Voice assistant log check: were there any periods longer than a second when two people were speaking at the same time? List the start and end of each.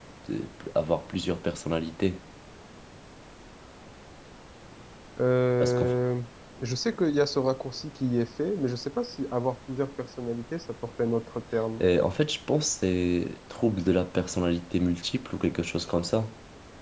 none

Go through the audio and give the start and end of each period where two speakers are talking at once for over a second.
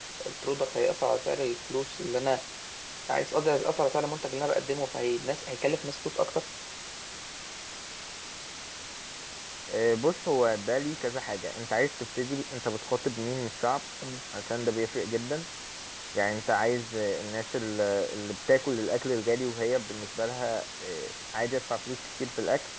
none

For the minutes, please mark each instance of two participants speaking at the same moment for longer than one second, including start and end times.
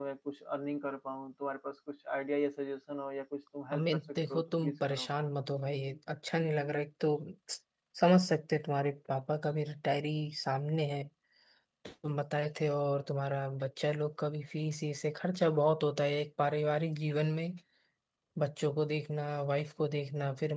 3.7-5.1

